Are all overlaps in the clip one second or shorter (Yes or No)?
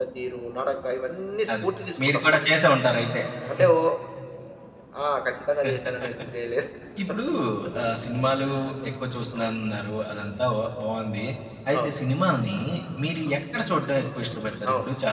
Yes